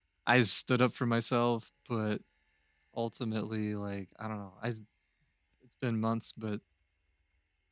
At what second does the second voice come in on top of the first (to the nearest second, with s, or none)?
none